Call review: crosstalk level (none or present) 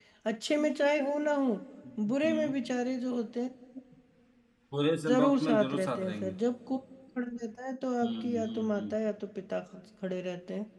present